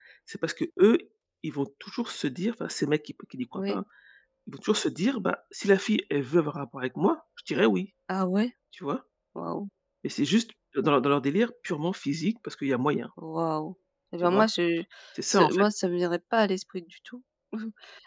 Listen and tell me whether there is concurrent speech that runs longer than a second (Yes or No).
No